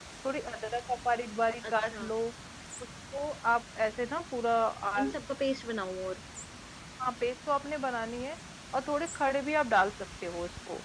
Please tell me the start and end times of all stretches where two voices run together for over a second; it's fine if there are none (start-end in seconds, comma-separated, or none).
none